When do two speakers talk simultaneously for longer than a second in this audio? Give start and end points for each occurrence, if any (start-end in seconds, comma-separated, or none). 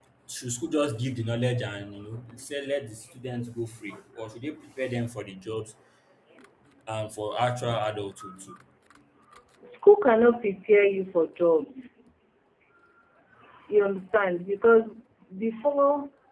none